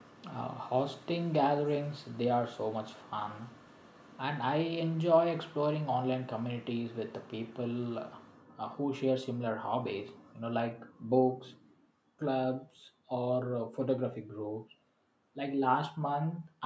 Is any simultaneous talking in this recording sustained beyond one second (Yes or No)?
No